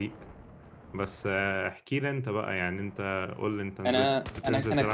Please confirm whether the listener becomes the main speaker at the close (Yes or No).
Yes